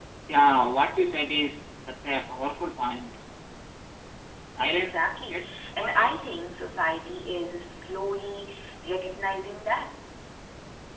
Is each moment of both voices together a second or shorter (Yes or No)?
No